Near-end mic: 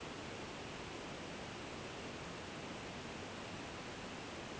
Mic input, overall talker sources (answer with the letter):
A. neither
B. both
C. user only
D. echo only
A